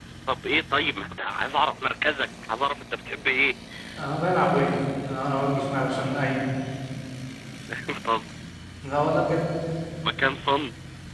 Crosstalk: none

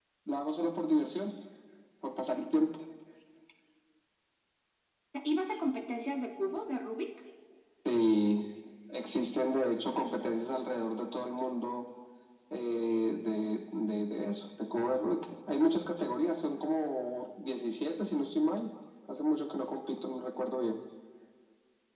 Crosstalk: none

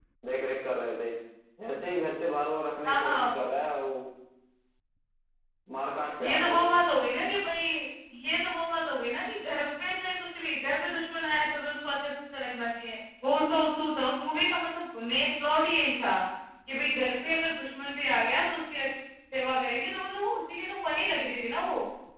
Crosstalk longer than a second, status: none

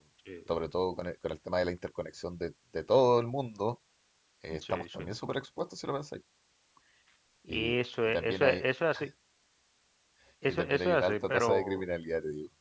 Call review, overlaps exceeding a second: present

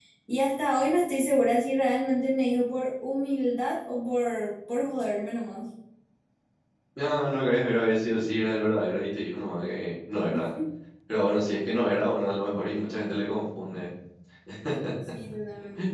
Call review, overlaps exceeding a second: none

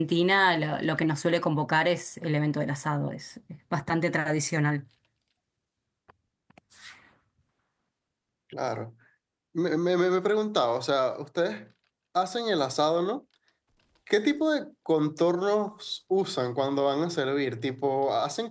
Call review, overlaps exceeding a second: none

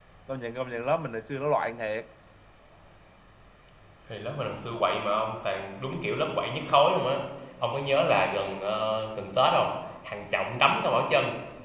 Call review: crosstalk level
none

